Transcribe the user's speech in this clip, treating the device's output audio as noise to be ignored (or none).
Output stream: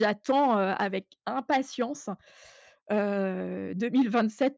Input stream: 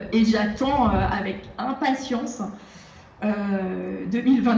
none